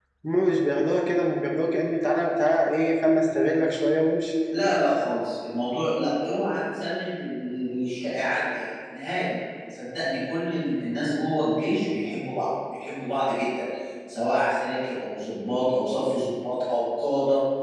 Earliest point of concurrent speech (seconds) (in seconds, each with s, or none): none